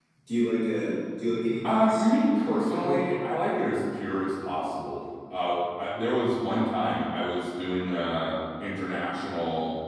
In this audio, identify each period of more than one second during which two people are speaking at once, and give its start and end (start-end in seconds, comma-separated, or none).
1.6-3.0